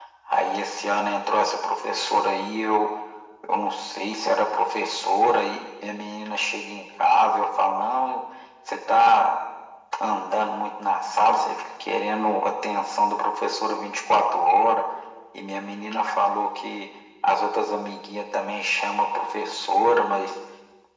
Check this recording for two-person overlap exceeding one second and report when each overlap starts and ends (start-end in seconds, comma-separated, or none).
none